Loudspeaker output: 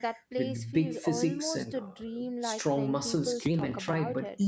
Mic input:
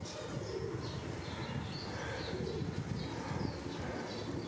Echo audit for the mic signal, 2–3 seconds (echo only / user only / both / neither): neither